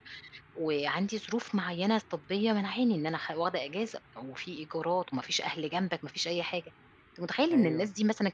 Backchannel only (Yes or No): Yes